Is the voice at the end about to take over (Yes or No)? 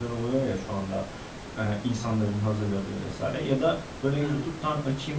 No